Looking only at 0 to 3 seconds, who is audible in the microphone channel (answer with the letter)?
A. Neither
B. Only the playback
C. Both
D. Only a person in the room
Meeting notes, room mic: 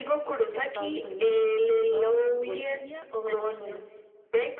B